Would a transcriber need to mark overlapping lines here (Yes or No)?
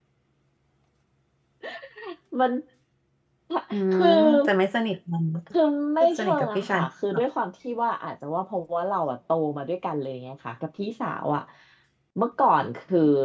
Yes